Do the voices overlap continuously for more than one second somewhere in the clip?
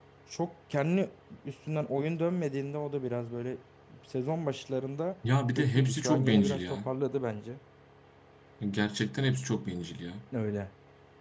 Yes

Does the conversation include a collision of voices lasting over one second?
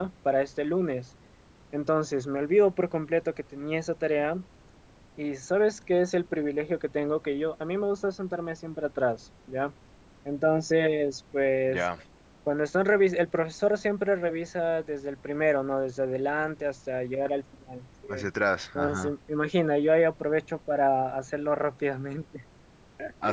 No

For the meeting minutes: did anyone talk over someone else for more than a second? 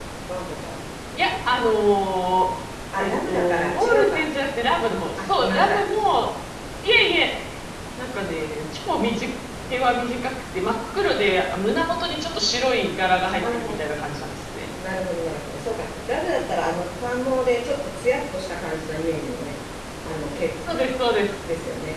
Yes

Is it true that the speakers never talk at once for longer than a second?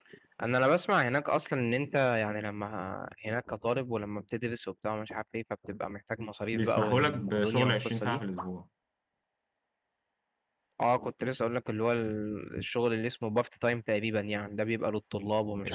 No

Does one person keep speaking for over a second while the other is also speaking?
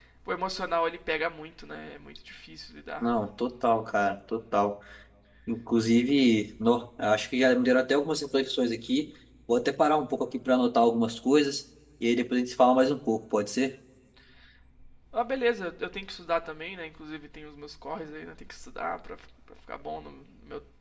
No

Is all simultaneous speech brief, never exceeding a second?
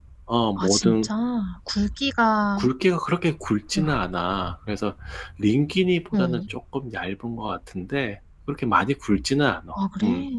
Yes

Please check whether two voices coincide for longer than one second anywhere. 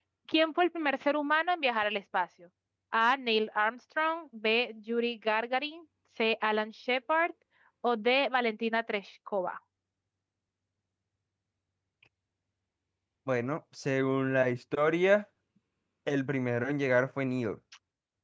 No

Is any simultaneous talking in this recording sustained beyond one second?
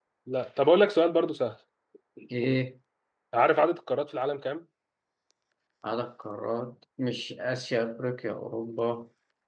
No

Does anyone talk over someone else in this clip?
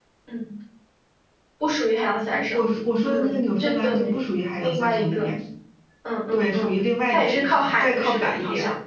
Yes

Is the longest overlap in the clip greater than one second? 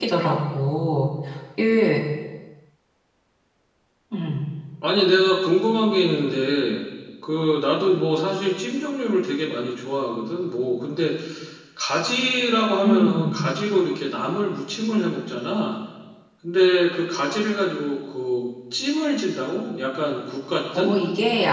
No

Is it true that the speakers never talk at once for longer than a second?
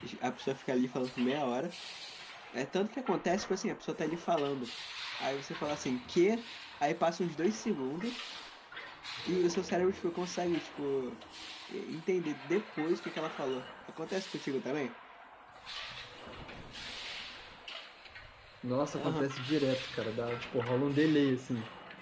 Yes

